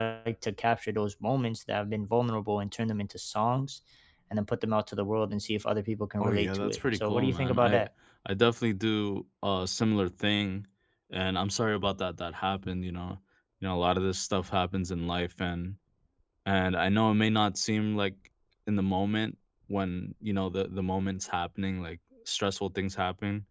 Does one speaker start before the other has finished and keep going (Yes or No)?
Yes